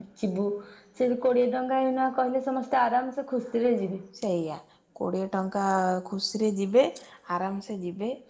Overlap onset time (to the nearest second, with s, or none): none